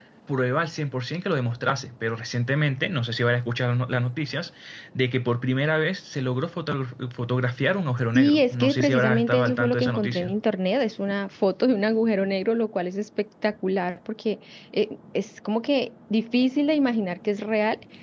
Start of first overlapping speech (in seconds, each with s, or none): 8.1 s